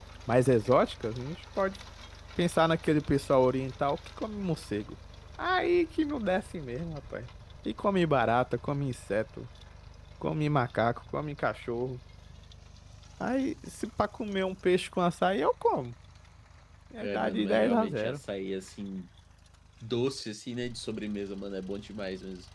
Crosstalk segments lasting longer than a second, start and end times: 17.0-18.2

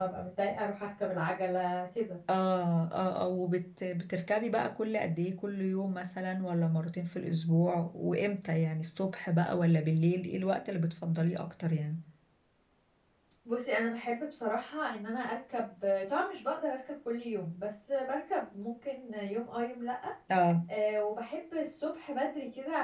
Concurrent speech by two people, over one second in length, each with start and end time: none

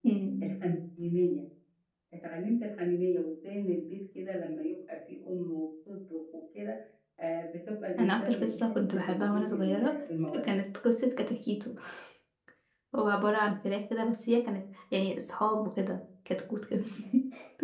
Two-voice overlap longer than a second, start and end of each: 8.0-9.9

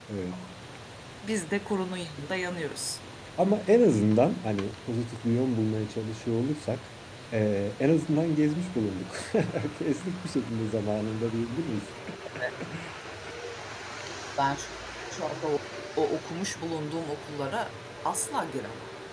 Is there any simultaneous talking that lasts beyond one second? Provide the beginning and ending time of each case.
none

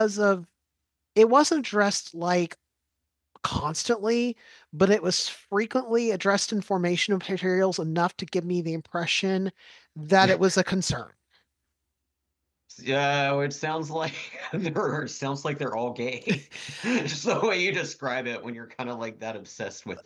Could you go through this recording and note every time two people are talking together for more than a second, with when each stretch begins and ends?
none

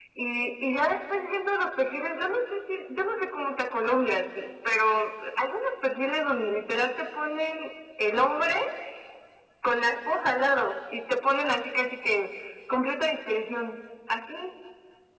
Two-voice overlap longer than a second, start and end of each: none

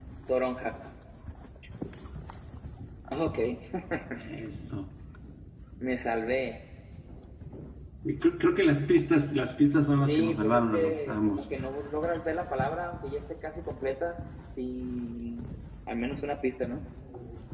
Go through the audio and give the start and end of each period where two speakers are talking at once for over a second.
10.1-11.4

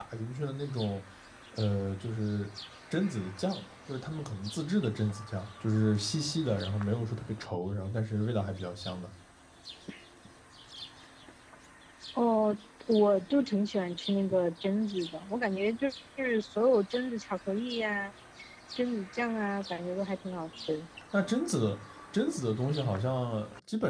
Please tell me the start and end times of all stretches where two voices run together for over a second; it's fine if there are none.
none

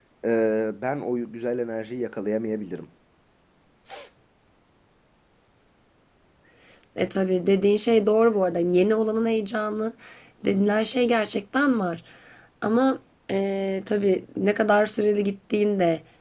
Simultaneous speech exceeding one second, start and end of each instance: none

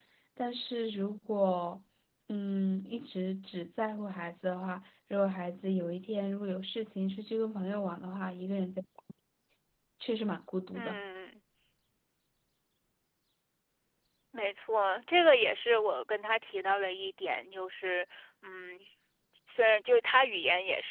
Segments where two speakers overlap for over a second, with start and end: none

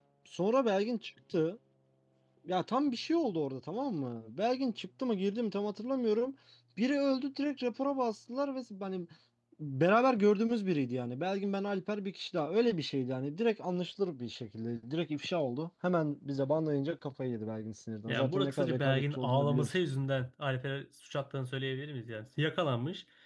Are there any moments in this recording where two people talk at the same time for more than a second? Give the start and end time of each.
18.1-19.7

